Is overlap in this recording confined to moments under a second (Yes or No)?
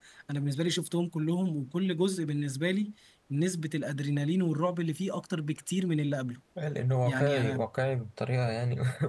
Yes